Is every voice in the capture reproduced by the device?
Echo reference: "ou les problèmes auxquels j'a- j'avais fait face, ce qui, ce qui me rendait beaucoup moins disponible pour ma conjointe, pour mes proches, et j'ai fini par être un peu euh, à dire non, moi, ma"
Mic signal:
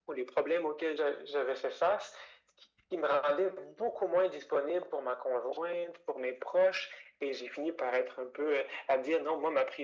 Yes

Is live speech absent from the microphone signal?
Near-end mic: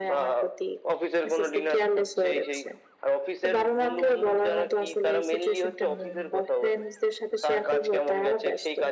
Yes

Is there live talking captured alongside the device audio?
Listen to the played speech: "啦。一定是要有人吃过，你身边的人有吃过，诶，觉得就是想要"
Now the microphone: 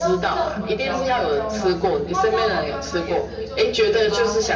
Yes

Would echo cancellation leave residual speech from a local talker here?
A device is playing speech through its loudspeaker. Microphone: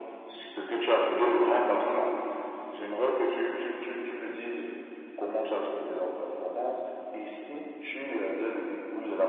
No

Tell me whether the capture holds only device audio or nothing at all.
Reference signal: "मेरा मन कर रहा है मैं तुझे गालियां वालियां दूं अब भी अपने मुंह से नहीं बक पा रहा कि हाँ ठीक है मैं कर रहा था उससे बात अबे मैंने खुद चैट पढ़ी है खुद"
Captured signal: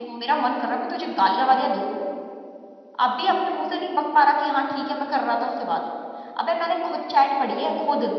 Yes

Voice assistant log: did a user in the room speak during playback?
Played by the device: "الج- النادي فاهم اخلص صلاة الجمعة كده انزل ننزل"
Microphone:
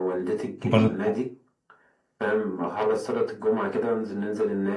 Yes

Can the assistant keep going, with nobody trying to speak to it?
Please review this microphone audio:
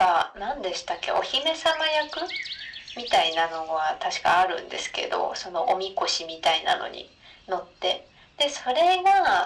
Yes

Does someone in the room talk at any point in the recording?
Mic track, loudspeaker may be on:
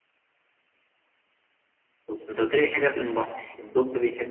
Yes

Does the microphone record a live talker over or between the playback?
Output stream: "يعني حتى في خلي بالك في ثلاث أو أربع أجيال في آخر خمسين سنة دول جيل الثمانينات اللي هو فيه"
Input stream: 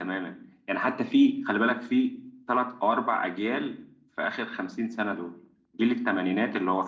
No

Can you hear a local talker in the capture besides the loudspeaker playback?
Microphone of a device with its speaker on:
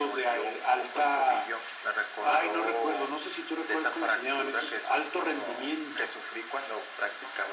No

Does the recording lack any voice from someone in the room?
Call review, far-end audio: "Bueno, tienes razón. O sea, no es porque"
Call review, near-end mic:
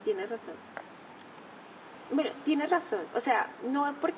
Yes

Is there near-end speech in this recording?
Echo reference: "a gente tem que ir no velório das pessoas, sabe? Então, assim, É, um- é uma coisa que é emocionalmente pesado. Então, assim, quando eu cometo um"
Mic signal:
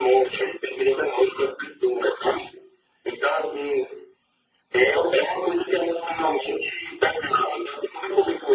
No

